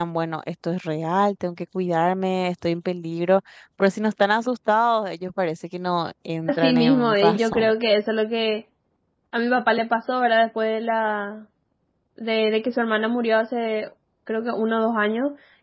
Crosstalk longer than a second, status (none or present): present